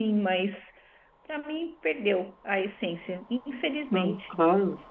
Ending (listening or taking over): taking over